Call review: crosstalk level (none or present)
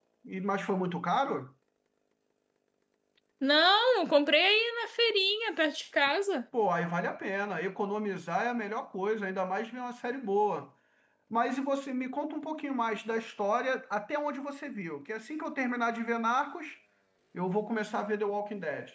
none